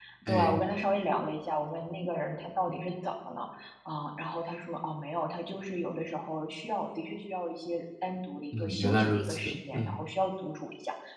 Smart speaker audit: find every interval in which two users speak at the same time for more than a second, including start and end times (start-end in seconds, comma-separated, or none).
8.6-10.0